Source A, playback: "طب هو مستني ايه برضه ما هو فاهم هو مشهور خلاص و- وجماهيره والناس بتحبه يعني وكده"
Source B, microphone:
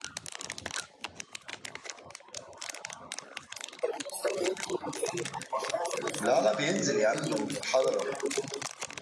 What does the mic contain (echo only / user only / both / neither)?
both